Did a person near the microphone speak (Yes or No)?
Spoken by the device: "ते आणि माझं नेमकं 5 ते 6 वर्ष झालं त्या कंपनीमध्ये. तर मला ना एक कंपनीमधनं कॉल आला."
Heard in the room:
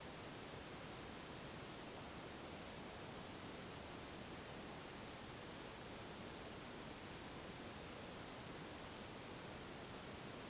No